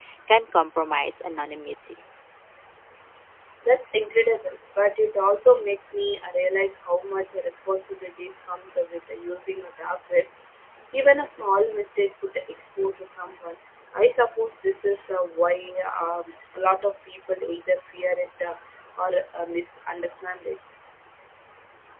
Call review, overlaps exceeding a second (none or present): none